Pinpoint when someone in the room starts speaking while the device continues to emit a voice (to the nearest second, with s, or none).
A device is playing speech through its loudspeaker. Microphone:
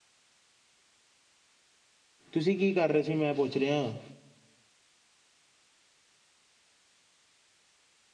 2 s